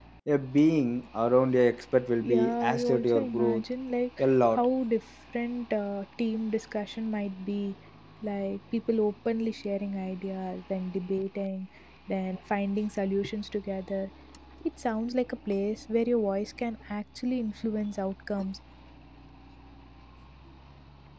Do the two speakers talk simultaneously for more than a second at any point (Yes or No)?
Yes